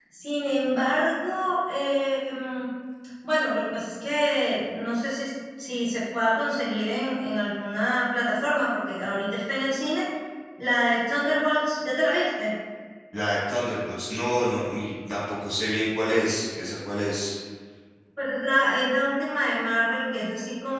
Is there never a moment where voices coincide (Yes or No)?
Yes